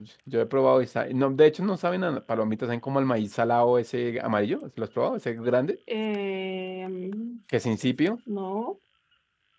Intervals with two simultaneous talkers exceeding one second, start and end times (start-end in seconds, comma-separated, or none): none